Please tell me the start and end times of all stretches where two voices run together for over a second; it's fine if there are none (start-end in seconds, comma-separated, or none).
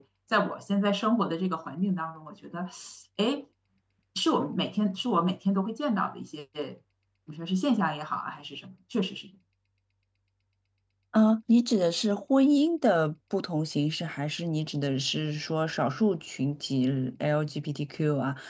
none